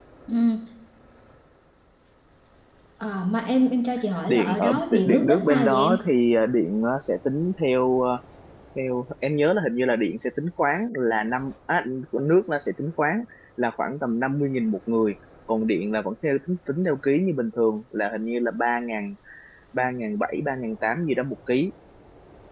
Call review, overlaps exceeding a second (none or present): present